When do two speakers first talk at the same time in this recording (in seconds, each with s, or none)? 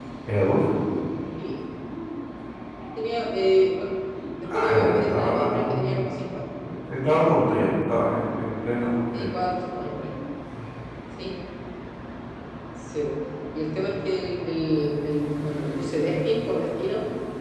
4.5 s